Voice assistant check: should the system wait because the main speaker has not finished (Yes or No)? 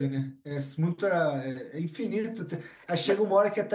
Yes